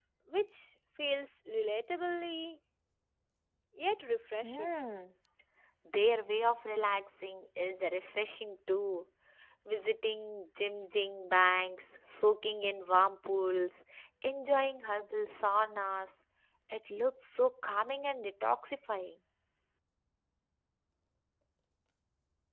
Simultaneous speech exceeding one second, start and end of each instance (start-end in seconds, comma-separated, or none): none